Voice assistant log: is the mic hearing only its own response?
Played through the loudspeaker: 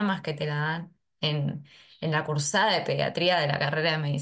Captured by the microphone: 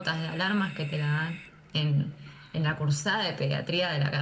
Yes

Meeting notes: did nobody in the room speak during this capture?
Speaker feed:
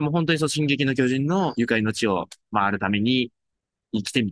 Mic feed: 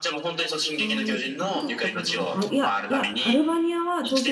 No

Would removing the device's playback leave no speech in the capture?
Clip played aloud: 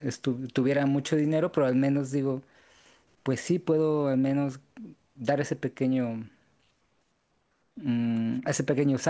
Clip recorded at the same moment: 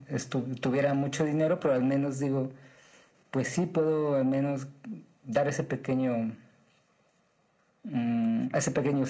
Yes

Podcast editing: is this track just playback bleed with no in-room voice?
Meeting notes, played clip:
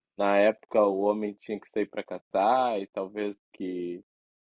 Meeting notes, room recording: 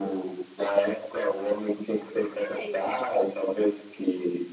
No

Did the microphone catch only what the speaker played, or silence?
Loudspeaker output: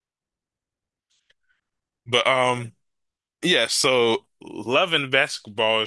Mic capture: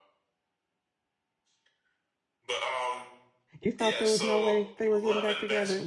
No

